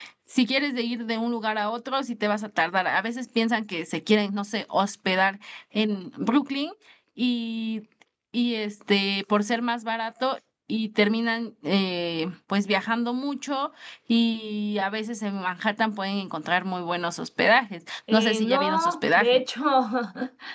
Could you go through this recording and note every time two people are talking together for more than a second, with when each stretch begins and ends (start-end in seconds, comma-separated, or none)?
18.1-19.4